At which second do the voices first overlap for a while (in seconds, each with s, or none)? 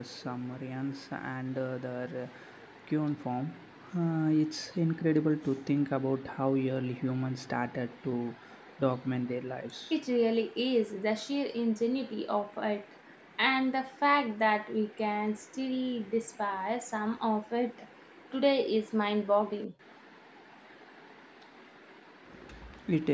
none